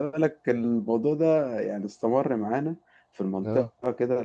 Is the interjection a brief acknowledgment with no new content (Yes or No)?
Yes